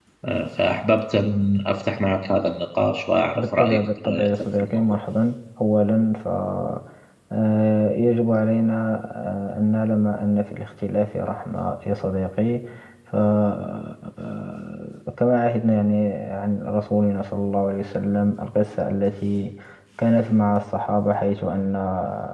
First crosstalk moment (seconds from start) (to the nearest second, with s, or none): 3 s